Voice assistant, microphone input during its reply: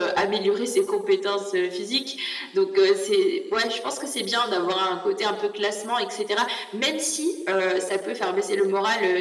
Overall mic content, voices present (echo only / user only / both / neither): echo only